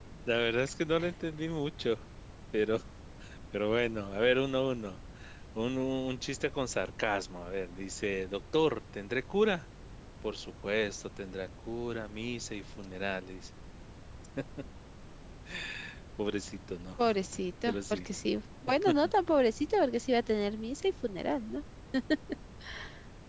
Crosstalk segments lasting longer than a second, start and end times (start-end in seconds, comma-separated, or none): none